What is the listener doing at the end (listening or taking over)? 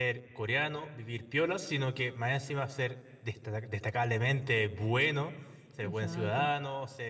listening